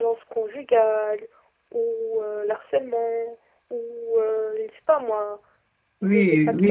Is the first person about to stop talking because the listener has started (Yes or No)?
Yes